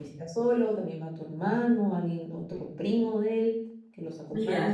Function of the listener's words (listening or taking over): taking over